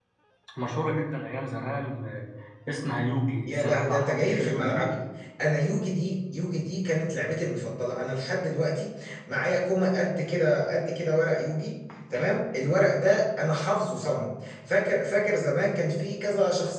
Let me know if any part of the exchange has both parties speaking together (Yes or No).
Yes